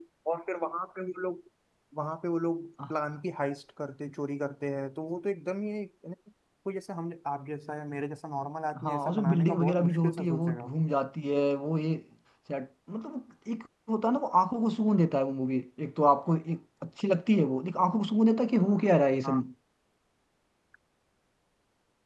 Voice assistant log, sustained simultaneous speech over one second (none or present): present